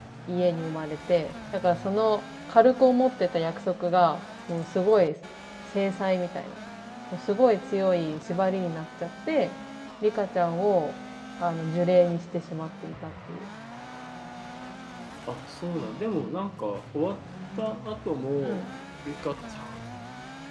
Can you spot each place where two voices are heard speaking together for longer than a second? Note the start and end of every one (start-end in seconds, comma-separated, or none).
none